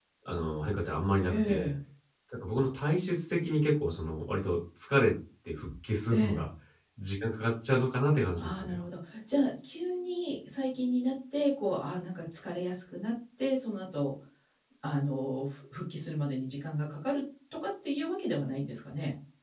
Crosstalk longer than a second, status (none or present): none